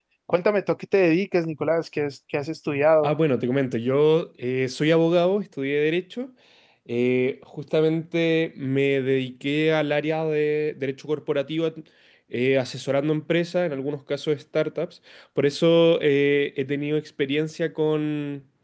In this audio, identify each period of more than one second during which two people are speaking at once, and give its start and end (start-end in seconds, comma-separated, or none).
none